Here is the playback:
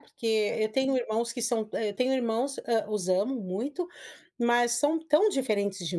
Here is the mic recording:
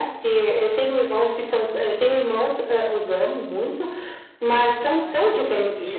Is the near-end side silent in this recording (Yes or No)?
No